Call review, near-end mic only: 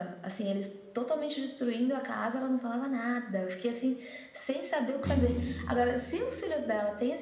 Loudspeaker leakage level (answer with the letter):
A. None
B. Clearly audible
B